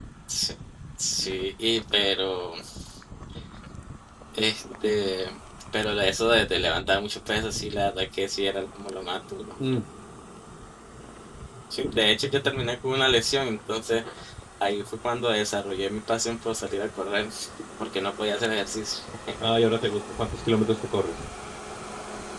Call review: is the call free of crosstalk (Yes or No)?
Yes